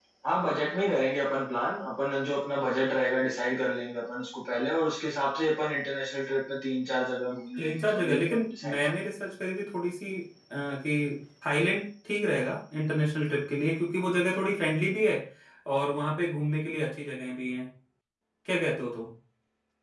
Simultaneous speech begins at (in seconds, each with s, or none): 7.6 s